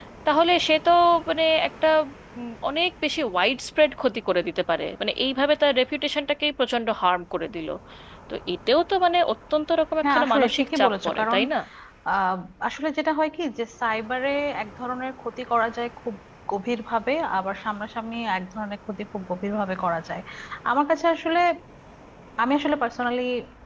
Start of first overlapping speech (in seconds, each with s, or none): 10.0 s